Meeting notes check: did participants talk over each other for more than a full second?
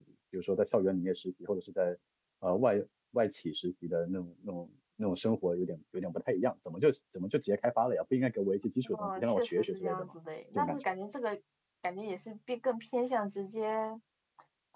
Yes, from 8.8 s

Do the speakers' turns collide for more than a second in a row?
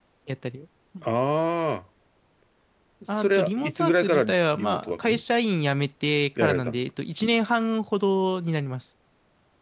Yes, from 3.1 s

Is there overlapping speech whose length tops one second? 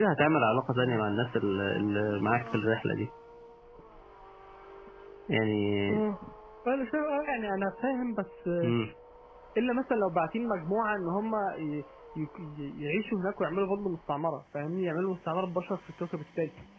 No

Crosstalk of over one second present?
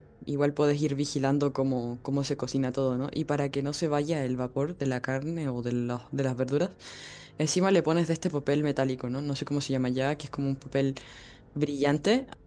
No

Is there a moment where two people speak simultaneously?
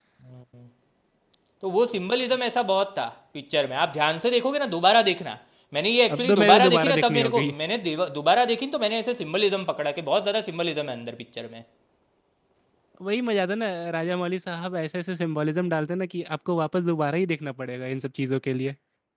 Yes, from 6.2 s

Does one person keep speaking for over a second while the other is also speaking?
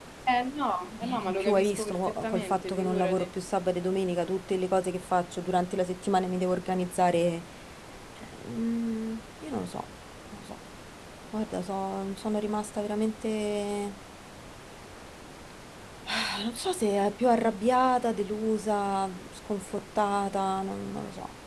Yes, from 1.0 s

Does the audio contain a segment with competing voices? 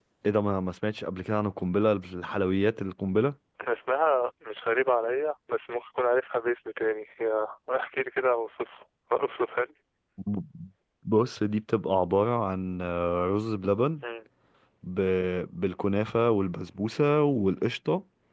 No

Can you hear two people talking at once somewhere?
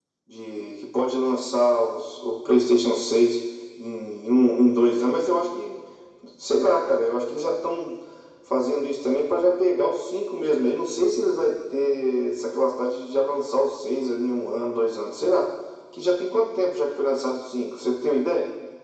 No

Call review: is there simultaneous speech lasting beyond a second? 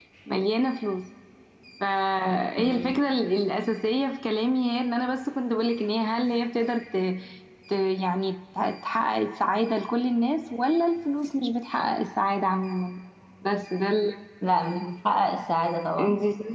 No

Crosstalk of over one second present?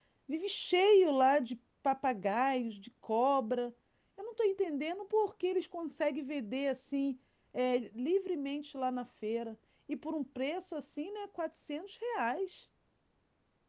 No

